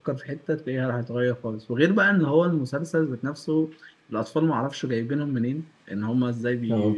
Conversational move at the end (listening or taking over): listening